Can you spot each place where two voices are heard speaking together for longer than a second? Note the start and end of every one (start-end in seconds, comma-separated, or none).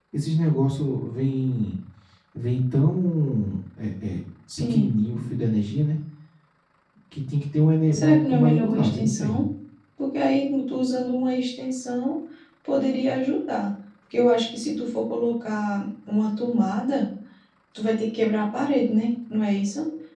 7.9-9.4